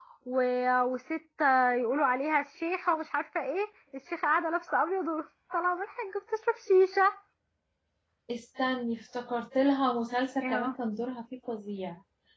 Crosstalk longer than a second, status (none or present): none